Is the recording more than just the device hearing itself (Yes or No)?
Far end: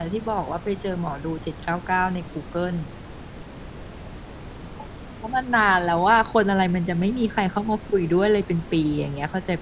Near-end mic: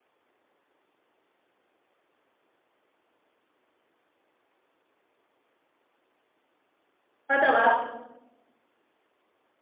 Yes